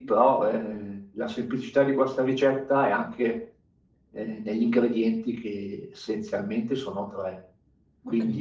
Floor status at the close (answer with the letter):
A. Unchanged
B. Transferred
A